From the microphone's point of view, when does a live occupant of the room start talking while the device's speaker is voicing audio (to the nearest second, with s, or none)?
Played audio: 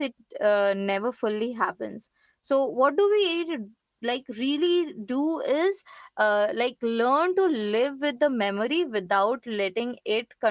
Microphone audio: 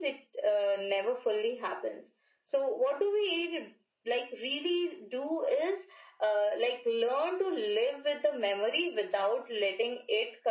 none